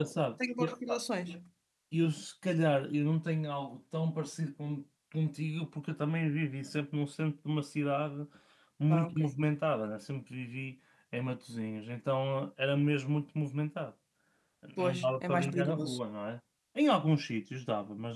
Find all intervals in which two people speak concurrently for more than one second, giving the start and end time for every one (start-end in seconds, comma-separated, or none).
14.8-16.0